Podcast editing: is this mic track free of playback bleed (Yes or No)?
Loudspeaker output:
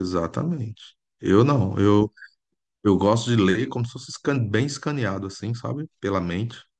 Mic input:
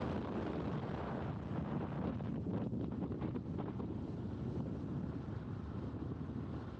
Yes